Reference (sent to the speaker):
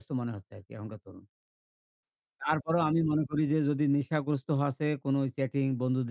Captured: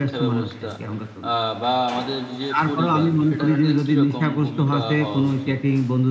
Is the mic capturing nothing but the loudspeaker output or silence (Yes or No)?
No